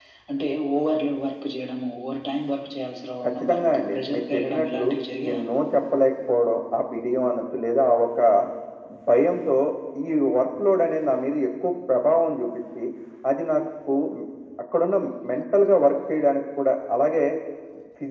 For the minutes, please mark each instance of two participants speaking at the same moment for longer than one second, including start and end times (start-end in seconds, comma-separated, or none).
3.2-4.9